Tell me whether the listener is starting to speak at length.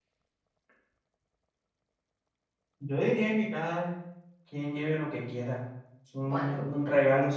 No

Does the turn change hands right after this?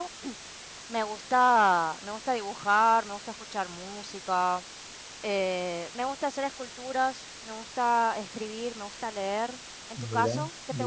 Yes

